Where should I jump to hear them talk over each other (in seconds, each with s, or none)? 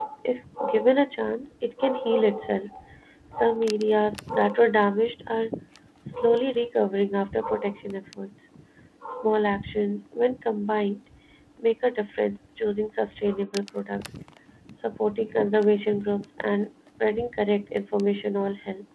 none